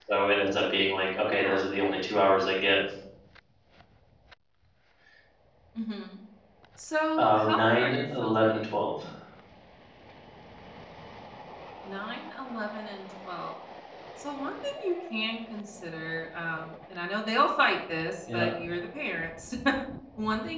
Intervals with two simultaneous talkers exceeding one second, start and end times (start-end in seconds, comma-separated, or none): 7.2-8.5